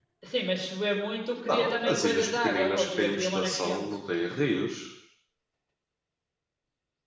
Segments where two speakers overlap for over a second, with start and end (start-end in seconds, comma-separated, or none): 1.4-3.9